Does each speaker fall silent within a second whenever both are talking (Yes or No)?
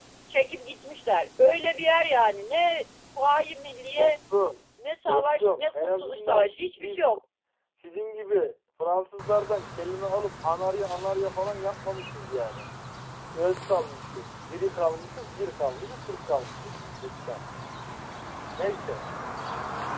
No